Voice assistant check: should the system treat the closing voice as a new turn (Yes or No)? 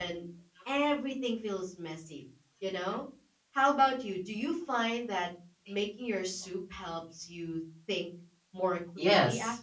Yes